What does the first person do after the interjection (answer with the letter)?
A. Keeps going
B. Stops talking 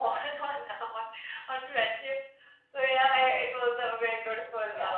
B